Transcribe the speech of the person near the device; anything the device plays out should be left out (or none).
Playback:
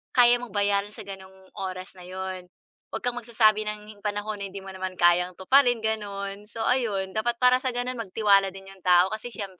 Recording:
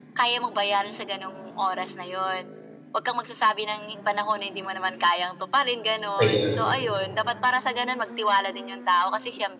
Ayan.